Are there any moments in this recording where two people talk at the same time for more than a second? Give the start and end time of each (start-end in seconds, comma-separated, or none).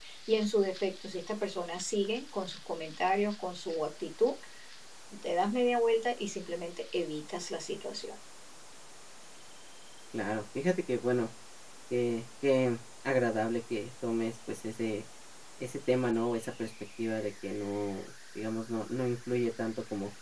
none